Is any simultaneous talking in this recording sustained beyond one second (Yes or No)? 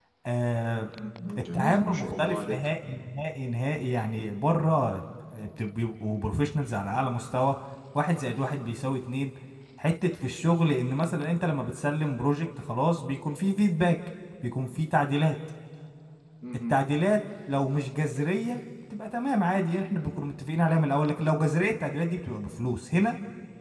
Yes